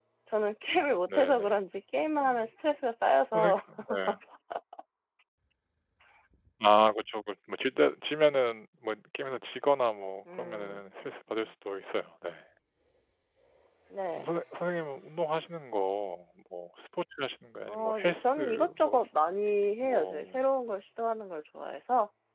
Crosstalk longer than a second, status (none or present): present